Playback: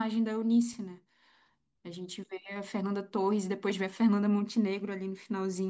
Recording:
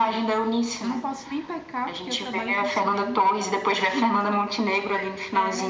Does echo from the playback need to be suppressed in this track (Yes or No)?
Yes